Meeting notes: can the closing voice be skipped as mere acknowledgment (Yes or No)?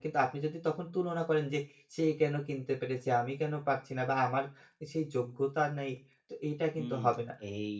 No